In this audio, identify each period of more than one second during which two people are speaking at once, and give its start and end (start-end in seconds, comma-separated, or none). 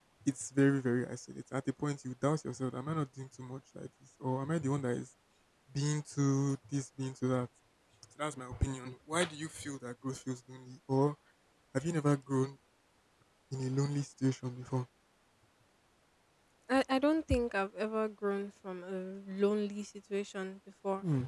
none